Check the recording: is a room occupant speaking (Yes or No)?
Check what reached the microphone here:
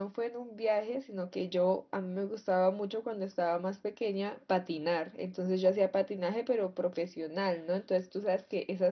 Yes